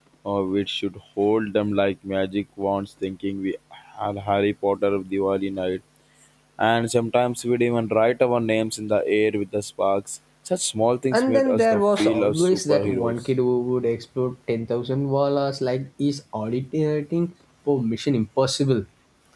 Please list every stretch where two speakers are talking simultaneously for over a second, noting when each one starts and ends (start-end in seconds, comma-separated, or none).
11.1-13.1